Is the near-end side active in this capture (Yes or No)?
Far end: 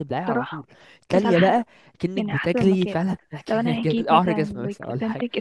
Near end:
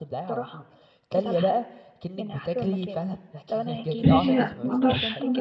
Yes